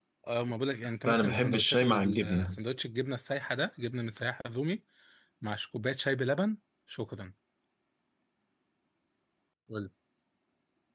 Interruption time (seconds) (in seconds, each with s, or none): 1.1 s